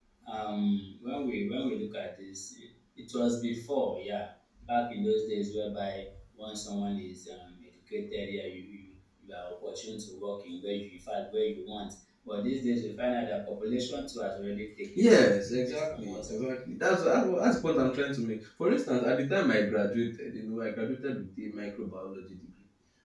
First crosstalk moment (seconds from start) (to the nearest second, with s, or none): 15 s